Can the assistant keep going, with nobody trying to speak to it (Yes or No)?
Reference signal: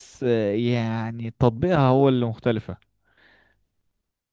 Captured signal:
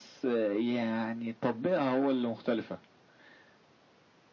Yes